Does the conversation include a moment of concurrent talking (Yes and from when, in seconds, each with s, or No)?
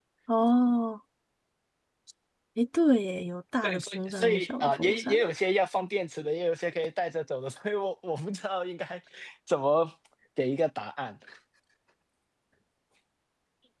Yes, from 3.6 s